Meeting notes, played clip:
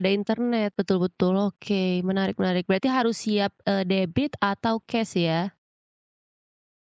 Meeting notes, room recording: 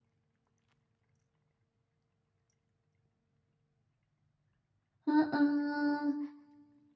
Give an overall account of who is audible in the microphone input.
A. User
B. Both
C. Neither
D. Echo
A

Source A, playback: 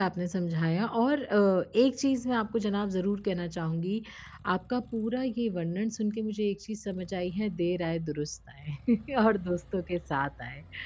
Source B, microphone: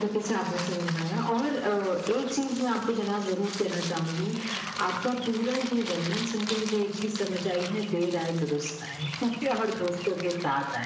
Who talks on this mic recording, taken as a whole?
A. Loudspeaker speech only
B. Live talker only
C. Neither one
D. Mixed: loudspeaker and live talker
A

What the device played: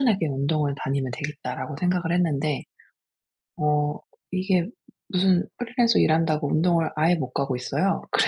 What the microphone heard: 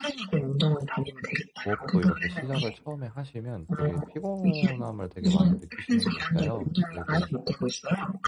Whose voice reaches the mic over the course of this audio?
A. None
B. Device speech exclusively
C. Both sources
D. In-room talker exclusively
C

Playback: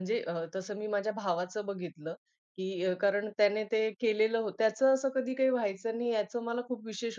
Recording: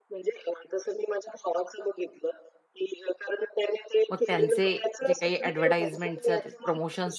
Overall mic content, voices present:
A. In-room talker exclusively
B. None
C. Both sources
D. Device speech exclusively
C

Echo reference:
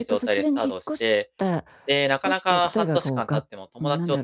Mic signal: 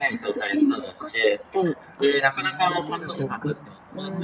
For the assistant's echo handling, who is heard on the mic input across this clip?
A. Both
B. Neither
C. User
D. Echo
A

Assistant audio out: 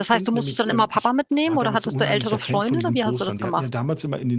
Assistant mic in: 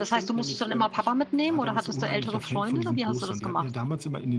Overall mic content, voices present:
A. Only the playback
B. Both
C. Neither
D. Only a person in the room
A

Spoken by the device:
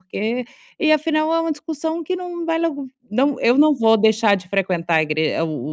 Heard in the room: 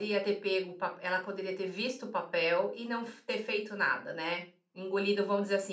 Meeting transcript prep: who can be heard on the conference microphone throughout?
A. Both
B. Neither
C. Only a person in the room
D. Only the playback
C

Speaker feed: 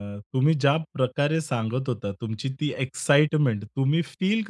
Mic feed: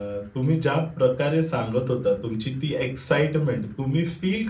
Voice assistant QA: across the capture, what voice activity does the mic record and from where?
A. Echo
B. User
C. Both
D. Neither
A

